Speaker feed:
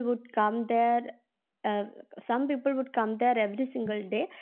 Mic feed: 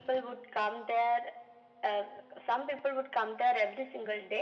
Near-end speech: none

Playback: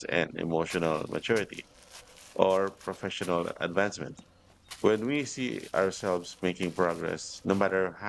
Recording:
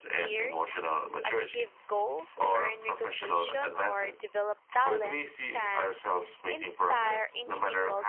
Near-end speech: present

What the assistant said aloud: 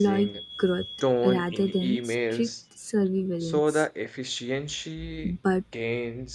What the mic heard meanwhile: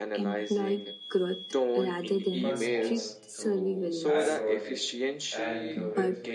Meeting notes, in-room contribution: present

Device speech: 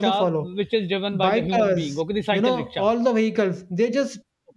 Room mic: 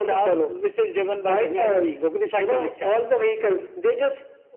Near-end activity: none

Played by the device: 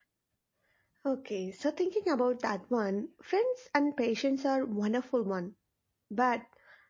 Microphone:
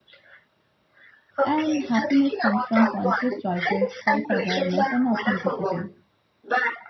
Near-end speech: present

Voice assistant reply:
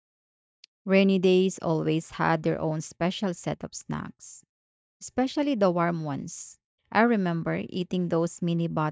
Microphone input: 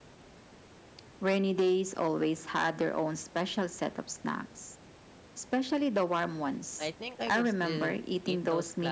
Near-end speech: present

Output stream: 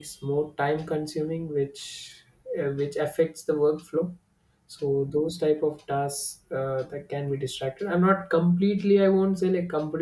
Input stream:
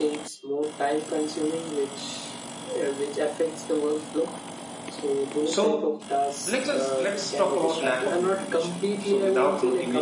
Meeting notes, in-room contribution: present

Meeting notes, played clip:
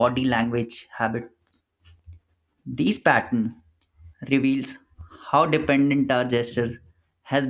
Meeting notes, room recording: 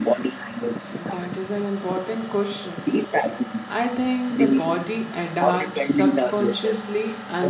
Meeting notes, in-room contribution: present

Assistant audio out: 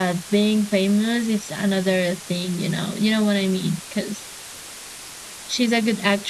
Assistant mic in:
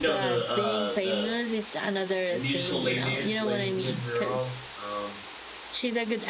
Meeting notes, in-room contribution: present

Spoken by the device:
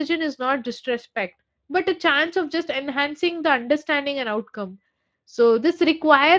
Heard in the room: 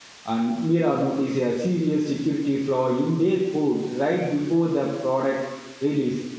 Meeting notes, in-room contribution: present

